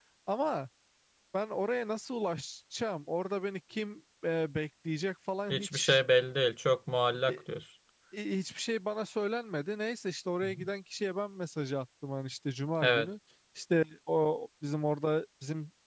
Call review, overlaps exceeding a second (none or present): none